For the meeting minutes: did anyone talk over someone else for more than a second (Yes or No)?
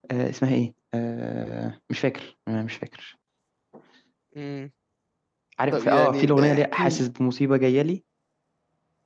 Yes